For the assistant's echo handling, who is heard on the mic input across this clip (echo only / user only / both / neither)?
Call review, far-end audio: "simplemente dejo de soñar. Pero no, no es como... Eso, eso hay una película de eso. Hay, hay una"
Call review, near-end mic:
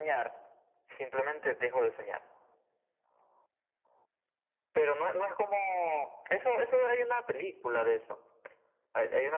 echo only